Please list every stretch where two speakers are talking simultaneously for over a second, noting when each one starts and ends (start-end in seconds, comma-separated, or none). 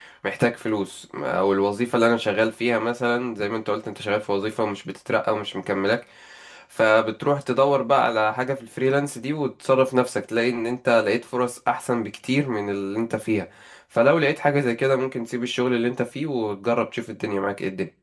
none